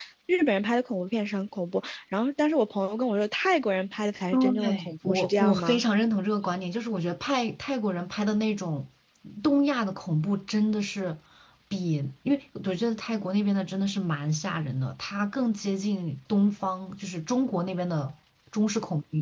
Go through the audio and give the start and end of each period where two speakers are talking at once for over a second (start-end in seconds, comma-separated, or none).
4.6-5.8